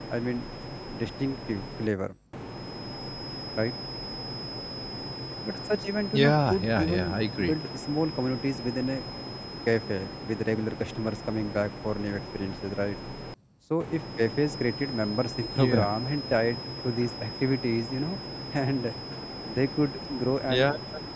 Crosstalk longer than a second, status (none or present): present